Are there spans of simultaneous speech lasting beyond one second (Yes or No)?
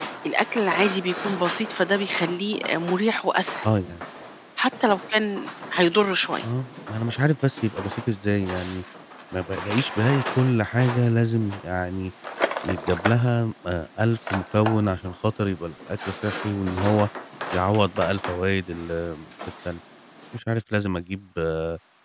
No